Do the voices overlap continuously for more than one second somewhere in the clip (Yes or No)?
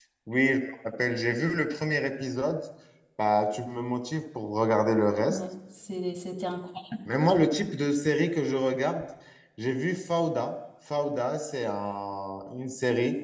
No